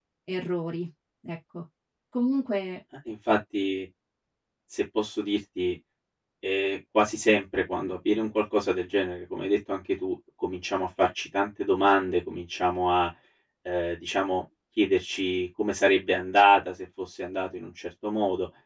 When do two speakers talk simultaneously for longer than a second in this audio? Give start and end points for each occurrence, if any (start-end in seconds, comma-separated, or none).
none